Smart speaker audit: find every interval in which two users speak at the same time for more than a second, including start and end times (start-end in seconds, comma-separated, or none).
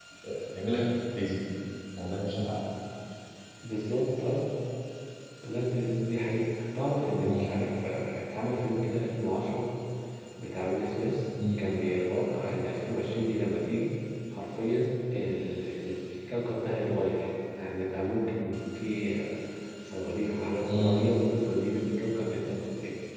none